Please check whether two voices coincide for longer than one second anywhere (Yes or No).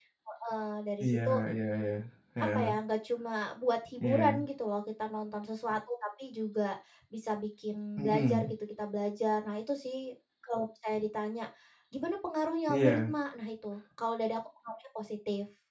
No